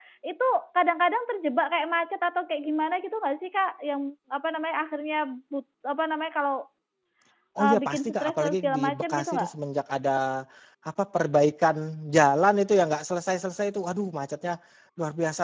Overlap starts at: 7.6 s

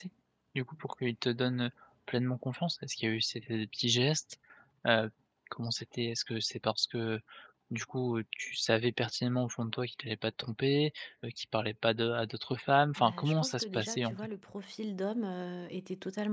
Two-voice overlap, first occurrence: 13.0 s

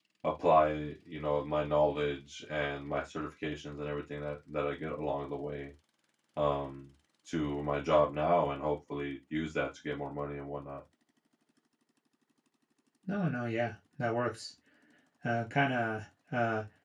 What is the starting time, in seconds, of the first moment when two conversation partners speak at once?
none

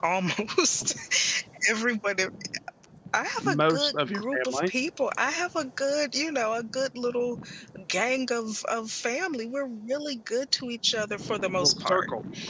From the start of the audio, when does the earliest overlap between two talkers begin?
3.4 s

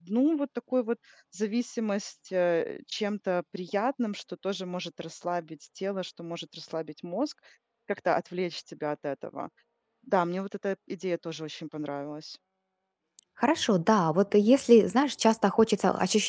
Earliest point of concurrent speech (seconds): none

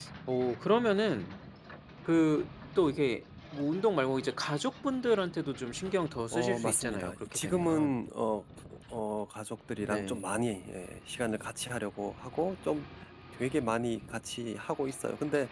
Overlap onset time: 6.3 s

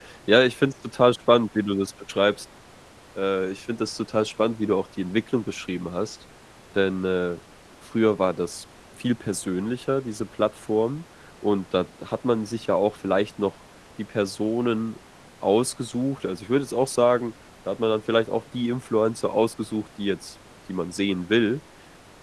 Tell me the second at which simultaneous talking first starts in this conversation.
none

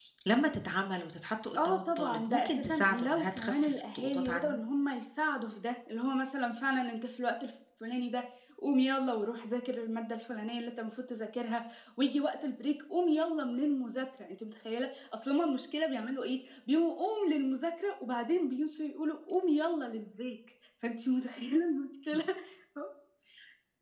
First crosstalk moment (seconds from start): 1.6 s

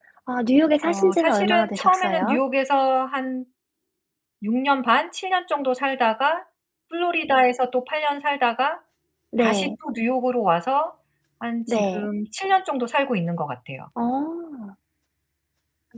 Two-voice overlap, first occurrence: 0.8 s

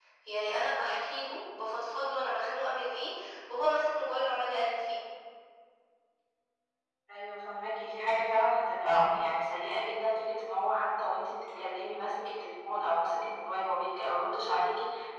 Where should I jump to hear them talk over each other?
none

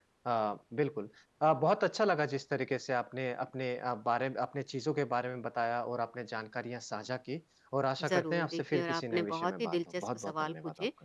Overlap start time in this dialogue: 8.0 s

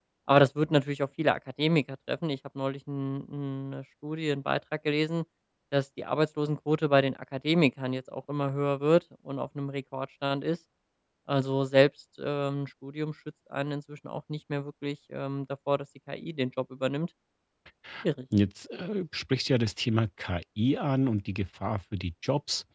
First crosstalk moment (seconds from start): none

